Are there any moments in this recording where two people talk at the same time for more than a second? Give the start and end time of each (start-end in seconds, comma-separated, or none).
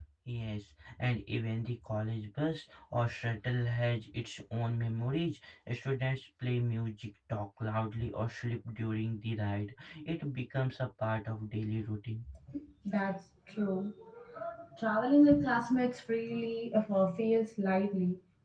none